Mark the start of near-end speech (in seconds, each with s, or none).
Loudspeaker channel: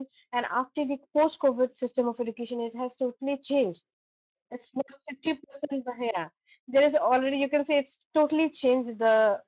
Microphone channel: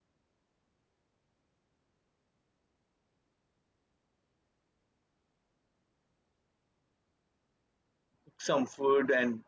8.2 s